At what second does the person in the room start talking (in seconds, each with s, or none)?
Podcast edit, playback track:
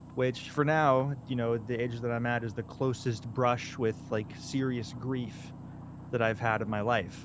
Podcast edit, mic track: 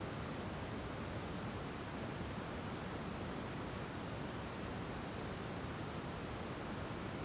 none